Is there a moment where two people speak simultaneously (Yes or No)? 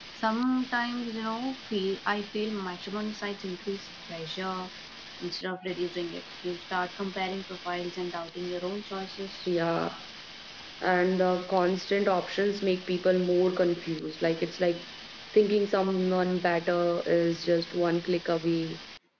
No